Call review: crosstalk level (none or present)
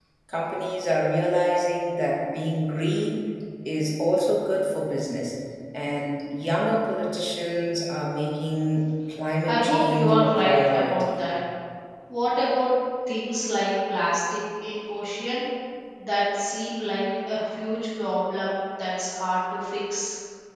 present